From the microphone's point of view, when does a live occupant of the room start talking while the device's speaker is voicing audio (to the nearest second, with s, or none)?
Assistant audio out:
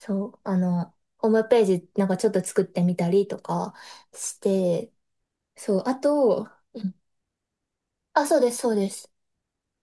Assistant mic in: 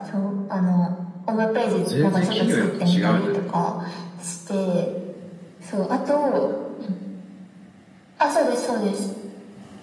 2 s